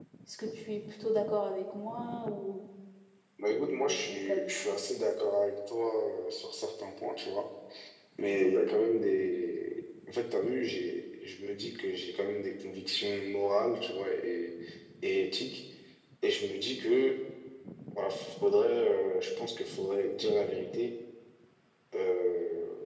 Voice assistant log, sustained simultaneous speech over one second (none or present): present